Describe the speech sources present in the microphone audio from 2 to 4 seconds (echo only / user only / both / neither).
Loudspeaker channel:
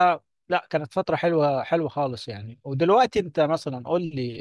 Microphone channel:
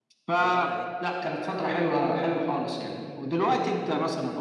echo only